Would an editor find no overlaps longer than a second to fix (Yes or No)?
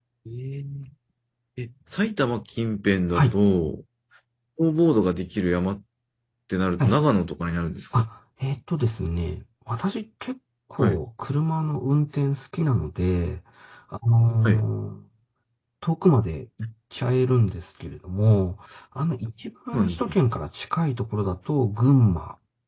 Yes